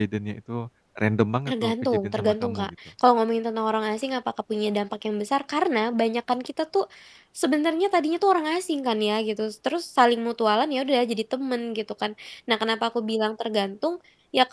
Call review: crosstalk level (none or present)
present